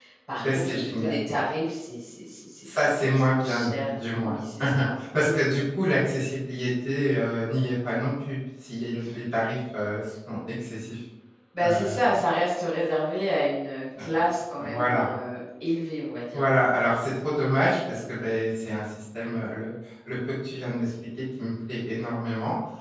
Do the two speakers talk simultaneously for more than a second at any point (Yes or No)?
Yes